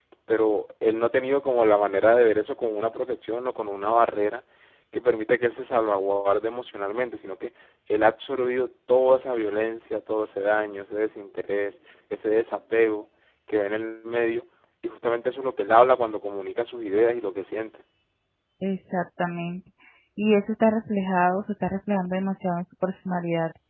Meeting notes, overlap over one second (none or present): none